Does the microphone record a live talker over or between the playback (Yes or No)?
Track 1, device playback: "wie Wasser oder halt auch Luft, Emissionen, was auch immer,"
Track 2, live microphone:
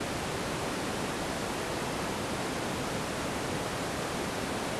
No